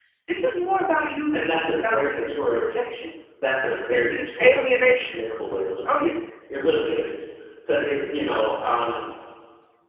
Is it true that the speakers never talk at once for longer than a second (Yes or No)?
No